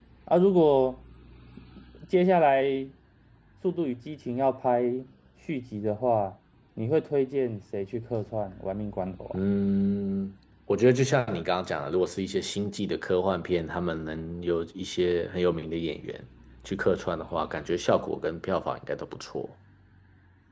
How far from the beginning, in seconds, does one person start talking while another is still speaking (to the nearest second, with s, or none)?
none